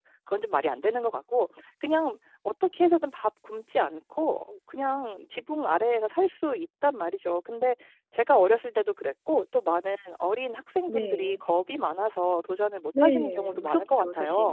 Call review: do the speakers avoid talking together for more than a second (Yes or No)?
No